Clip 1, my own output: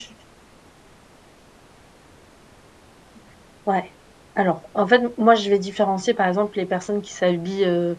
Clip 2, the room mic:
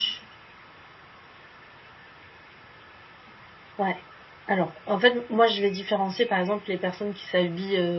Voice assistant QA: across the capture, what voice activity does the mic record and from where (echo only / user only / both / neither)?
echo only